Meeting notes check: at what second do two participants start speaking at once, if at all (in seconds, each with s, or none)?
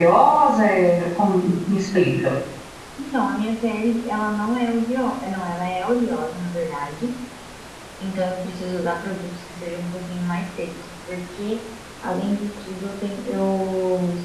none